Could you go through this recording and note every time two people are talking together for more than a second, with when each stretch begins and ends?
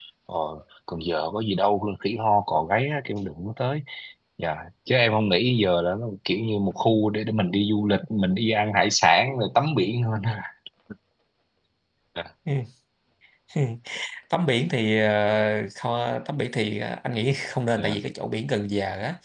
none

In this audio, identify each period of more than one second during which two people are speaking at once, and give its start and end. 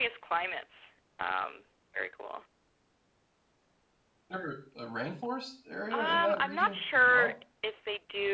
5.9-7.3

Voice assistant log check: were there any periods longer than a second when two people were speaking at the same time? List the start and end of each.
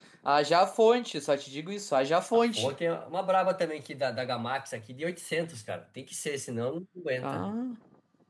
none

